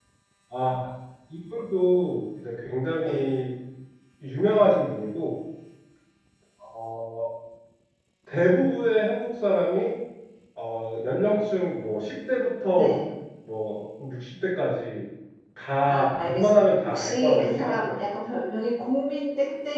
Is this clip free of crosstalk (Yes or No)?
No